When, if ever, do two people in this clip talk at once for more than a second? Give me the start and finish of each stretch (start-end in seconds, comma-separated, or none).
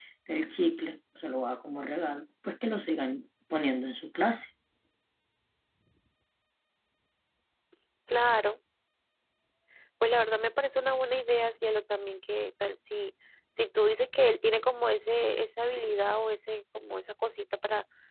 none